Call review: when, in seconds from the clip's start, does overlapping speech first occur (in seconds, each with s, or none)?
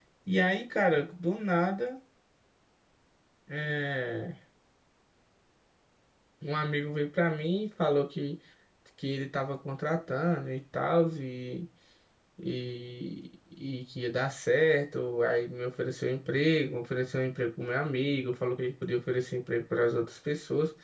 none